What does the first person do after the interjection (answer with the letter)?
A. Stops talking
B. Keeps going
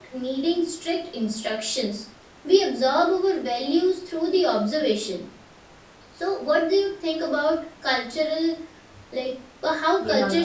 A